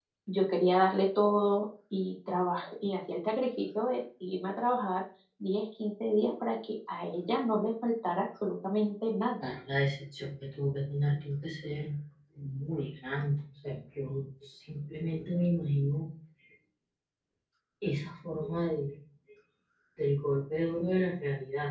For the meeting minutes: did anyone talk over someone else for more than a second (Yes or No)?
No